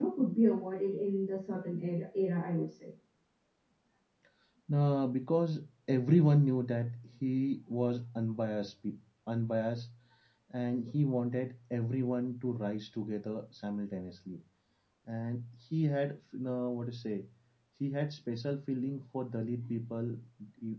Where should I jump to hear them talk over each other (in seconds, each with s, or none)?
none